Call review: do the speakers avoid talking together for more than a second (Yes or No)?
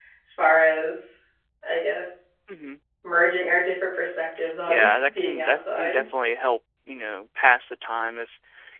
No